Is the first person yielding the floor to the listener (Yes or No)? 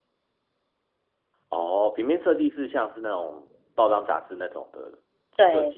Yes